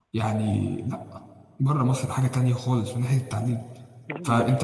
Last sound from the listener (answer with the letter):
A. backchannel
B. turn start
A